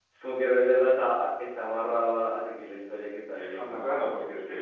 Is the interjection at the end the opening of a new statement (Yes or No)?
Yes